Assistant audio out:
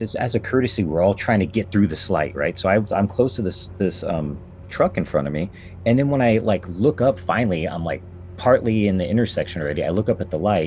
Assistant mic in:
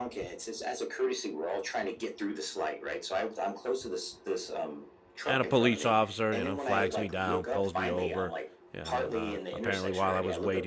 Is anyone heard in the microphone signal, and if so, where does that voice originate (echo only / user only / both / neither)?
both